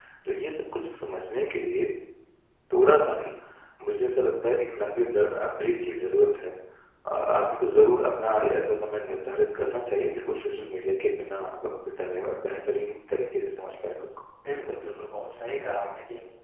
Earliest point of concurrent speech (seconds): none

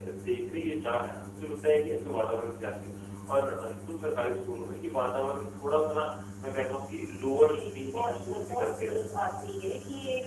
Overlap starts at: 7.5 s

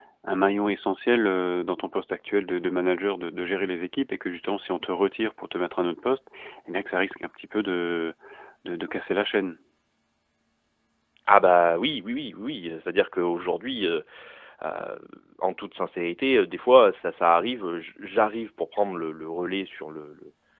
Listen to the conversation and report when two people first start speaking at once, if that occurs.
none

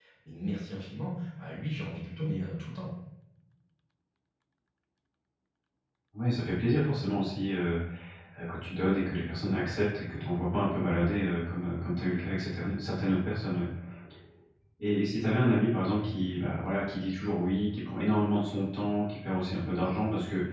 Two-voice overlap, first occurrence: none

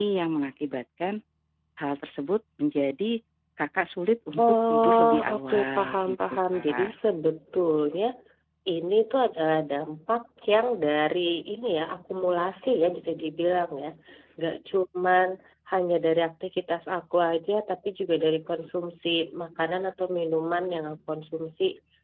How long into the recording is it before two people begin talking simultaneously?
4.4 s

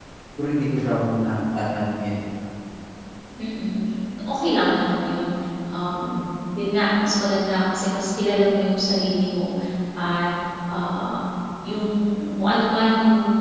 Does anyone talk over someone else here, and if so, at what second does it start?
none

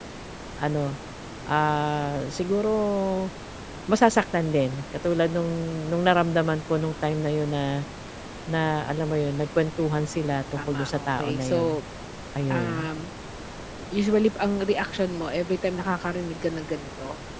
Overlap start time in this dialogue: 10.5 s

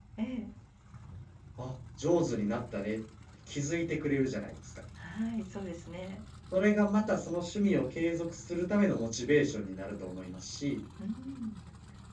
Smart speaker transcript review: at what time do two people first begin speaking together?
none

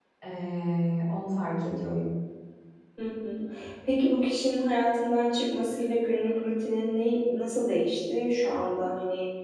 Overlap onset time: none

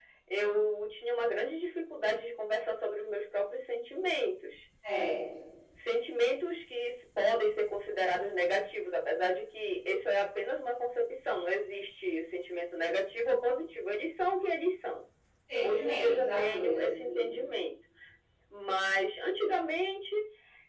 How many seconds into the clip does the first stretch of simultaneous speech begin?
15.6 s

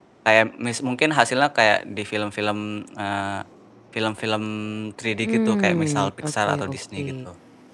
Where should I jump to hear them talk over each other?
5.2 s

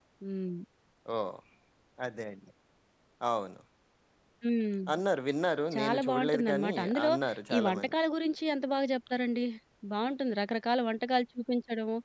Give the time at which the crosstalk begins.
5.8 s

